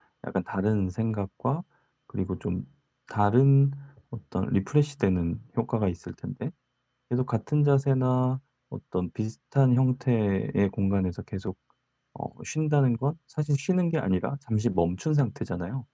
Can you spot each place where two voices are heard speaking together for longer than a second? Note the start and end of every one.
none

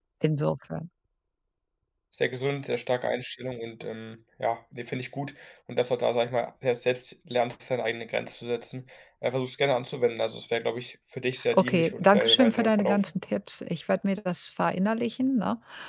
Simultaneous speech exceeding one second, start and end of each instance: 11.5-13.1

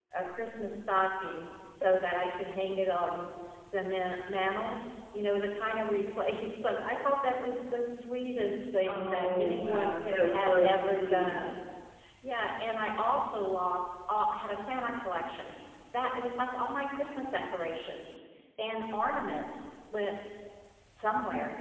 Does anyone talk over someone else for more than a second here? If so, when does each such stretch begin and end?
8.9-11.3

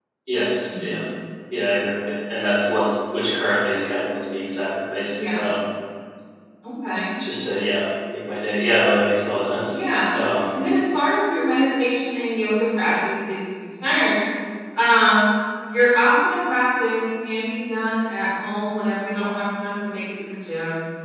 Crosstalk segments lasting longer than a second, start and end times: none

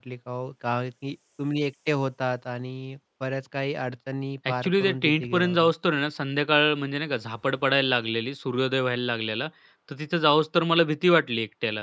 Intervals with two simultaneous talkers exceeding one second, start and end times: 4.5-5.7

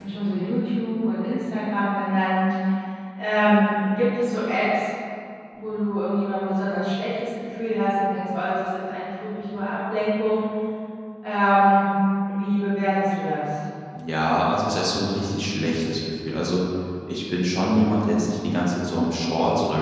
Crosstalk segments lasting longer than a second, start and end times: none

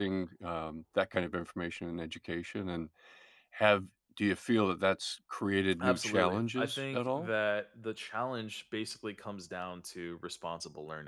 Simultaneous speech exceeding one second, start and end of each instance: 5.8-7.3

